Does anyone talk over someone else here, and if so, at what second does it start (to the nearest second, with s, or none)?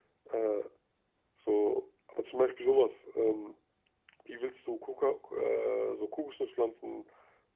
none